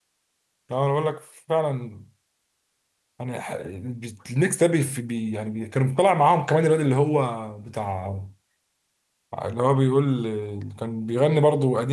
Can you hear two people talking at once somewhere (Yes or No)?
No